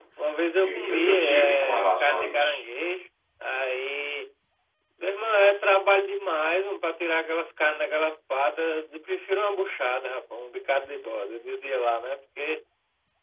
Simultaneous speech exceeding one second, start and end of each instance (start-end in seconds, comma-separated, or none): 0.6-2.6